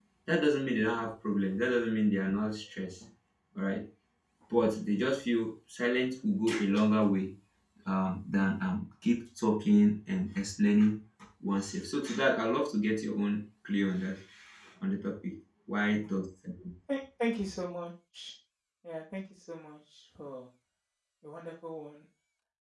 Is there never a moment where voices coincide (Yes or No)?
Yes